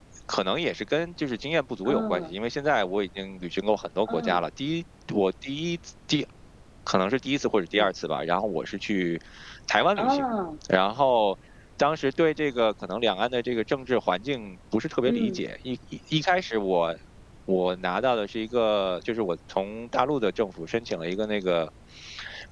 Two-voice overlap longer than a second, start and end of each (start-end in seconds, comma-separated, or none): none